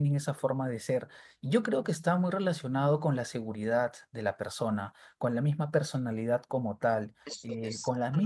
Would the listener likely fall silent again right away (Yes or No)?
Yes